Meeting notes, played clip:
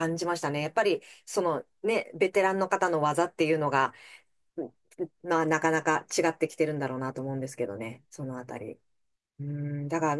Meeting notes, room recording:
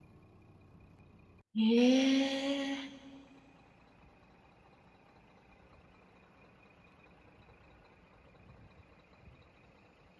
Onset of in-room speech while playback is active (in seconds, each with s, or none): 1.5 s